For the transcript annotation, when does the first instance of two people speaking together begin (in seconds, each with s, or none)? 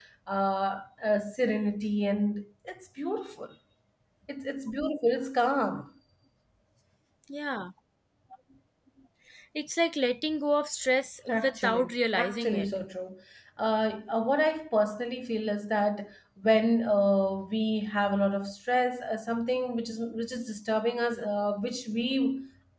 11.3 s